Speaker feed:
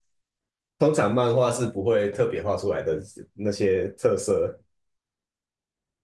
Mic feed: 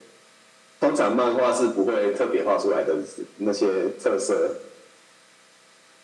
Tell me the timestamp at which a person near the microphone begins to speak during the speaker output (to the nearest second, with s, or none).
none